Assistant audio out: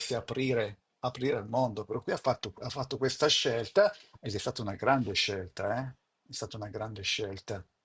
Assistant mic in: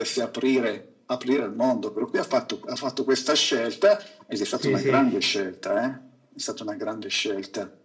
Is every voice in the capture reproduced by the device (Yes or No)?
No